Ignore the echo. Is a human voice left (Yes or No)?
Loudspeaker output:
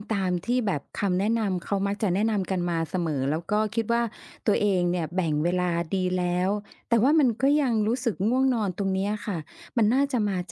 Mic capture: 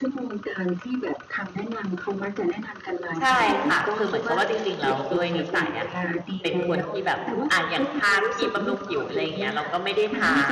Yes